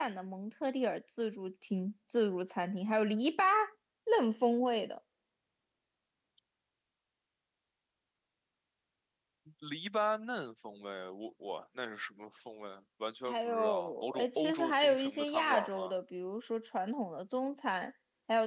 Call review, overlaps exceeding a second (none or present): present